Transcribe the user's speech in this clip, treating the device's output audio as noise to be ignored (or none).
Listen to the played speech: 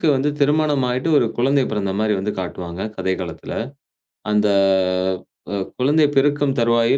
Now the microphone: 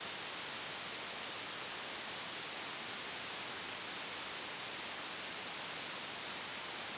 none